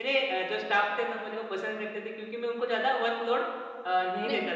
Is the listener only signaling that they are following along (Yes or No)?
Yes